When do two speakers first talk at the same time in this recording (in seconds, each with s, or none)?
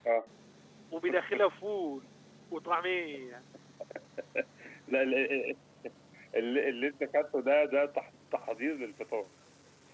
none